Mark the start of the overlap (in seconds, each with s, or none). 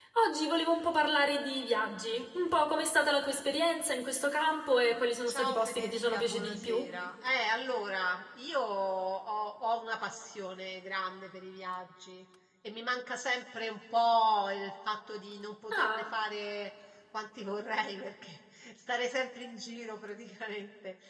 5.3 s